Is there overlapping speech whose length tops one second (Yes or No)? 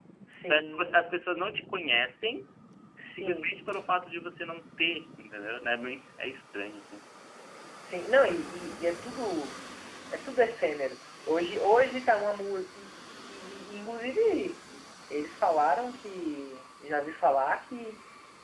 No